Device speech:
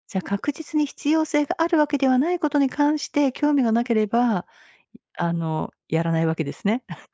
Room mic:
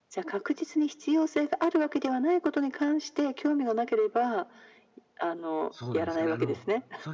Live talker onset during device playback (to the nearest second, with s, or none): 6 s